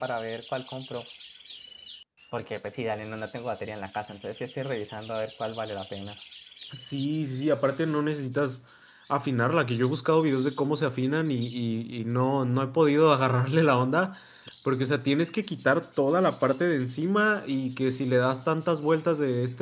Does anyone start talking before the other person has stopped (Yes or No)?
No